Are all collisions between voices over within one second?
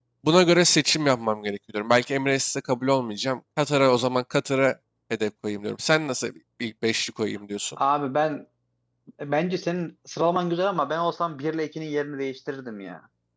Yes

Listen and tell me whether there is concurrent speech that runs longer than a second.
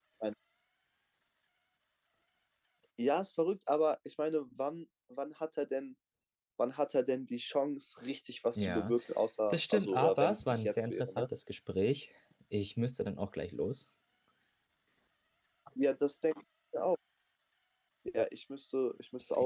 Yes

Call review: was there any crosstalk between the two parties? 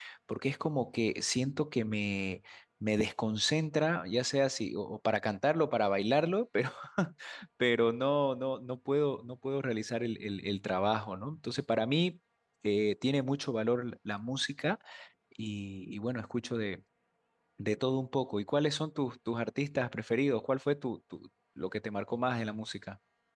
No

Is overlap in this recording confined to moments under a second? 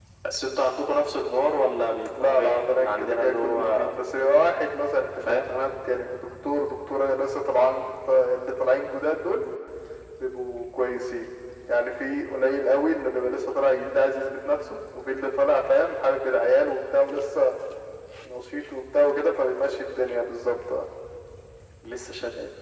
No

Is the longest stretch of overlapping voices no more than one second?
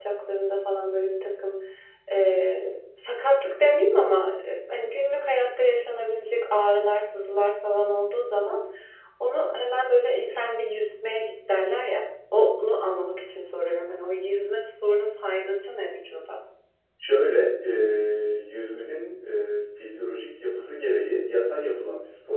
Yes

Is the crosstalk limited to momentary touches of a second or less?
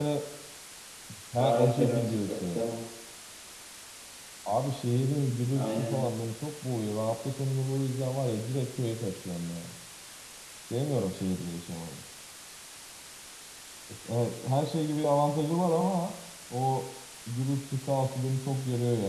No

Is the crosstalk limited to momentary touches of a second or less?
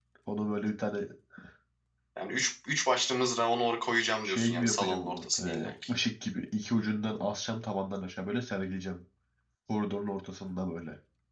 No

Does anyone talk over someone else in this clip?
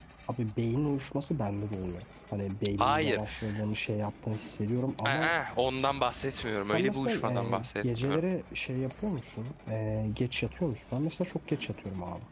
Yes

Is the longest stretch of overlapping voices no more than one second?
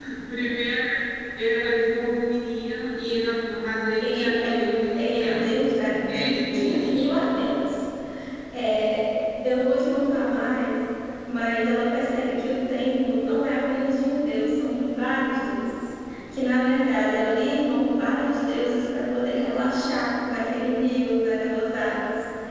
No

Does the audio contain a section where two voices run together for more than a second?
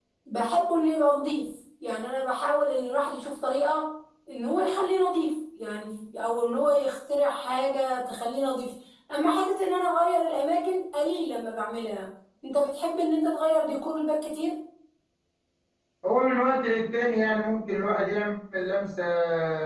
No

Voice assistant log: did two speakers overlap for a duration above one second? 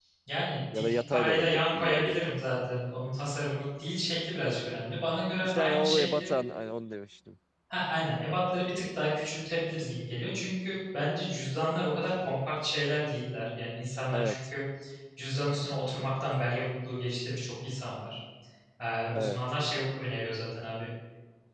Yes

